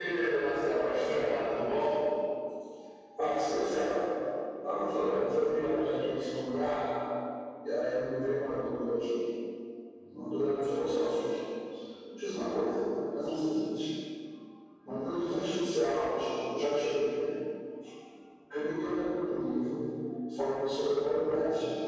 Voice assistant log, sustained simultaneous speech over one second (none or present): present